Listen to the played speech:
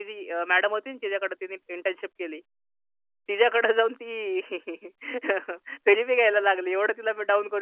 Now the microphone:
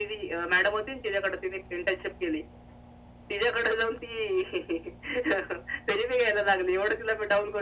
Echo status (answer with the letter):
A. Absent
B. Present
B